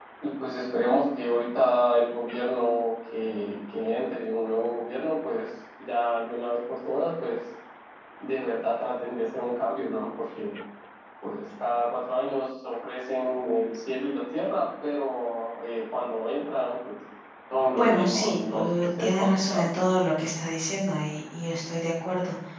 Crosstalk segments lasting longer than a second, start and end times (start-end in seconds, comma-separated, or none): 17.8-19.7